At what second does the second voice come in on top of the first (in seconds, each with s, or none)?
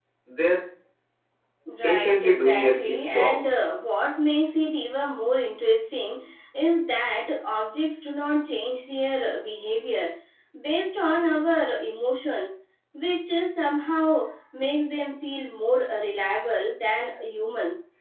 1.8 s